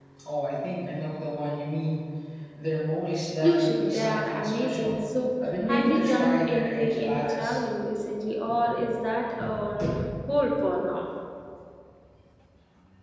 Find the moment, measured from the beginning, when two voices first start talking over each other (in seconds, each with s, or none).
3.4 s